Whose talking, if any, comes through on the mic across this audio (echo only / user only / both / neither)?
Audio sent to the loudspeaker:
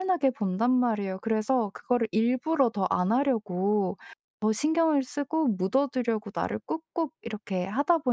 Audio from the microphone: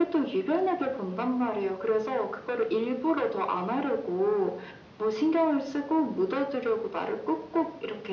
echo only